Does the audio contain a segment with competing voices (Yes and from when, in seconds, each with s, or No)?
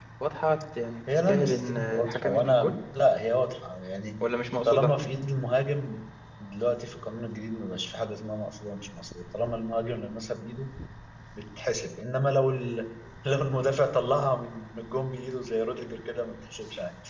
Yes, from 1.1 s